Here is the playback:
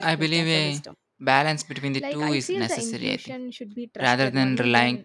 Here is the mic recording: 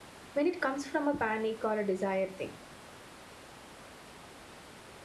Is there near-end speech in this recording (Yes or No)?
Yes